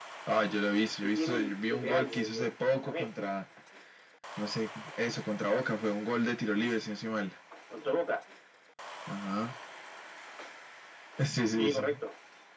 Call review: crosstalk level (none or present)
present